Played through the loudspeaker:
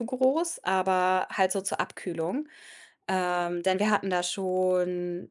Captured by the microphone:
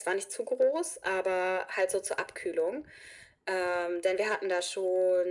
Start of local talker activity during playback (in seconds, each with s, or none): none